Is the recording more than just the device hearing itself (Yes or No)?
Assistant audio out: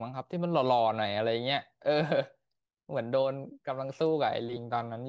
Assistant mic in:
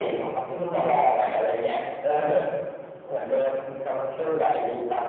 No